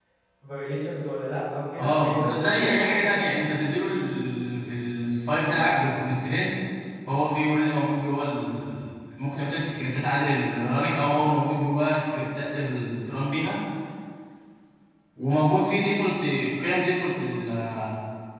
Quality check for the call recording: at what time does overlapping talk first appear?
1.8 s

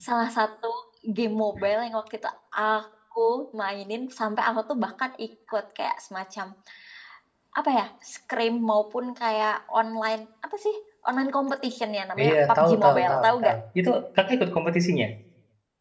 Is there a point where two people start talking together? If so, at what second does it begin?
12.2 s

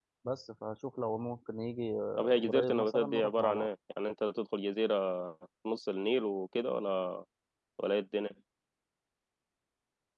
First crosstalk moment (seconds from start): 2.2 s

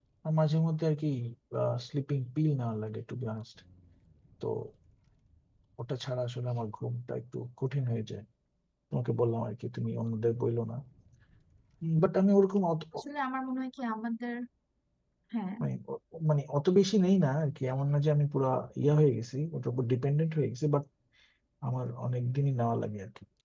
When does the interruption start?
none

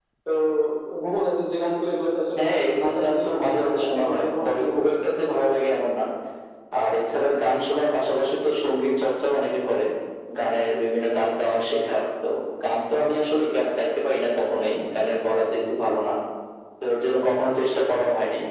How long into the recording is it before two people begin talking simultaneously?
2.4 s

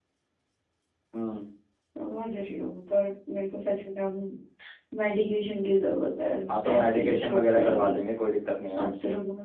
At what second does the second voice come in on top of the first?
6.8 s

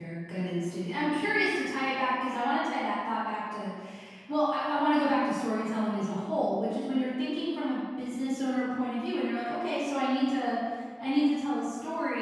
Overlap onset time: none

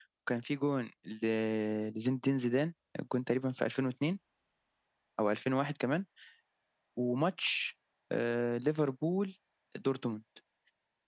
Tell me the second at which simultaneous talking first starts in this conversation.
none

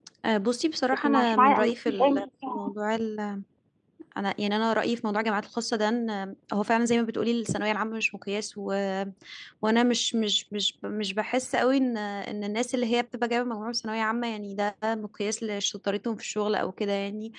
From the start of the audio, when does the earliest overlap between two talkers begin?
0.9 s

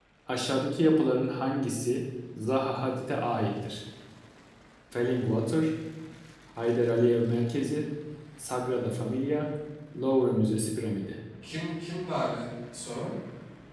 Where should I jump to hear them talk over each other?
none

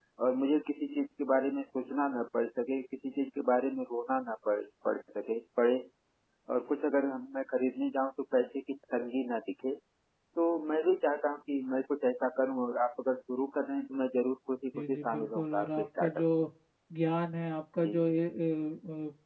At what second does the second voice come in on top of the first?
14.7 s

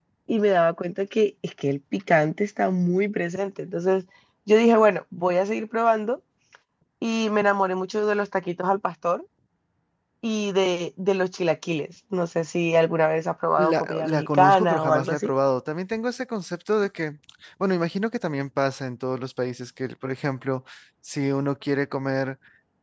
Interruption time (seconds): 13.6 s

